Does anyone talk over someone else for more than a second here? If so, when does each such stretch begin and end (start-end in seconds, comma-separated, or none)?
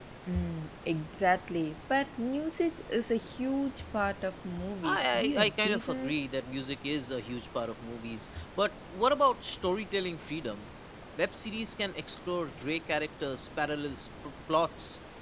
4.8-6.1